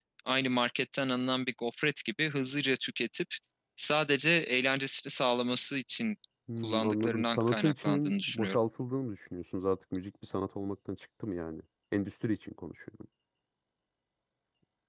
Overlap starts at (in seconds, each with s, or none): 6.6 s